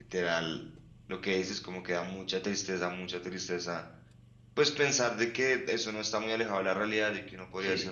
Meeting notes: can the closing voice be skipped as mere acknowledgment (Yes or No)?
Yes